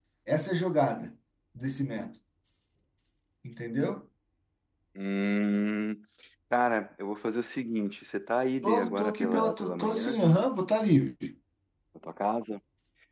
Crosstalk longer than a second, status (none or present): present